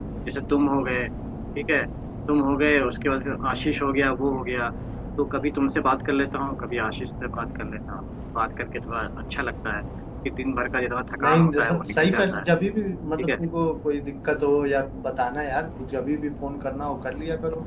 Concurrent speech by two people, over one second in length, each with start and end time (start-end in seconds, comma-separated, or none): 11.2-12.4